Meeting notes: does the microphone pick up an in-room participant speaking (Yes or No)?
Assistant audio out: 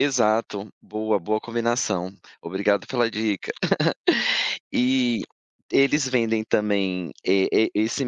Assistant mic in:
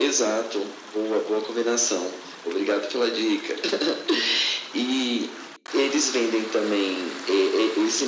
No